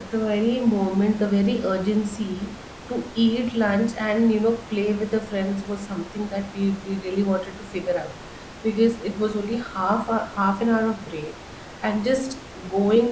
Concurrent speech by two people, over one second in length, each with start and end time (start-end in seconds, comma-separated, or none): none